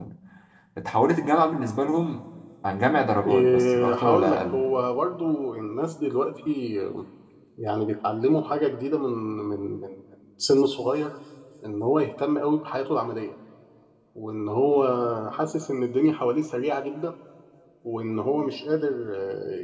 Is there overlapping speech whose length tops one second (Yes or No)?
Yes